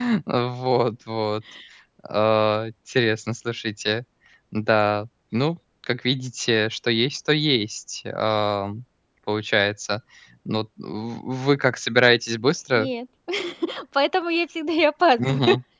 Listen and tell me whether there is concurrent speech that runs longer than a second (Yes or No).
No